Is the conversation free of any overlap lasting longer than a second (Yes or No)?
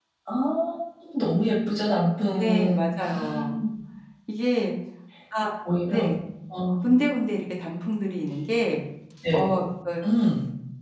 Yes